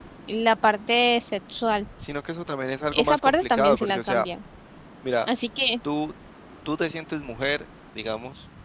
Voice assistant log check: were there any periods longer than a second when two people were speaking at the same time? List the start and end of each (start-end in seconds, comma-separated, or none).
2.9-4.3